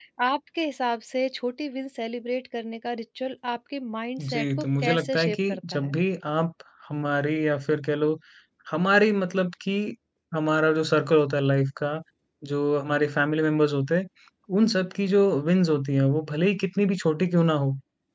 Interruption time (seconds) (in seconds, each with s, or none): 4.2 s